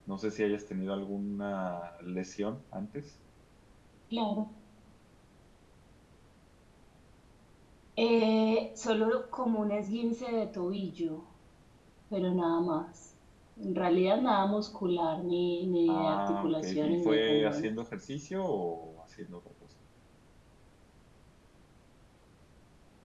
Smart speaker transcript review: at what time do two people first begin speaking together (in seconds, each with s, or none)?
15.9 s